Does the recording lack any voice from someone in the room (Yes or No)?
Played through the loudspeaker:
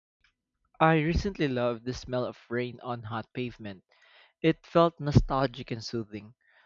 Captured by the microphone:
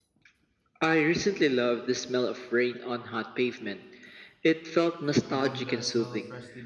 No